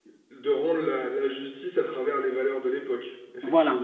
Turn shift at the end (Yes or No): Yes